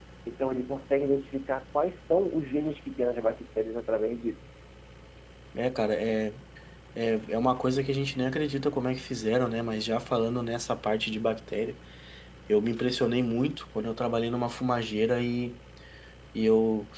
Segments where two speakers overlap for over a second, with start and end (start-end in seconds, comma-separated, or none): none